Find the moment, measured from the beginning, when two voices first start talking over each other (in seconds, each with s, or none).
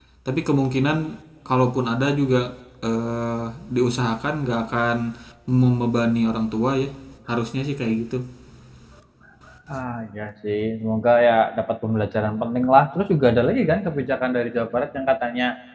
none